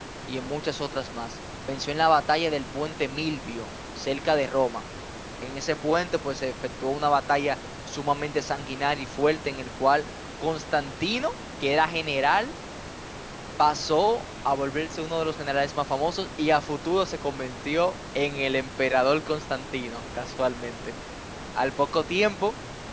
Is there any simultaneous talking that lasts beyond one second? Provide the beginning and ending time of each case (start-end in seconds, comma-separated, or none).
none